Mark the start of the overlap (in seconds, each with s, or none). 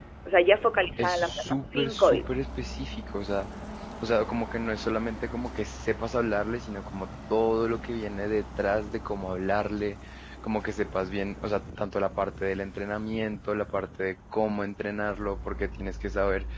1.0 s